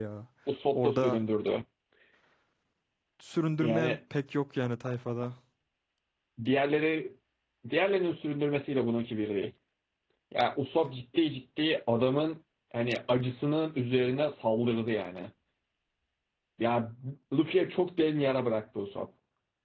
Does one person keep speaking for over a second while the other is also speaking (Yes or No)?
No